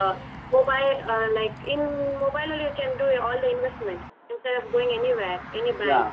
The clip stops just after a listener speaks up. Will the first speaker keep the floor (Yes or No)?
No